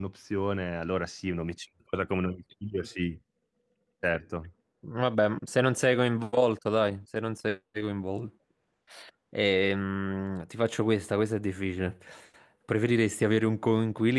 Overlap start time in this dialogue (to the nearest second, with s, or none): none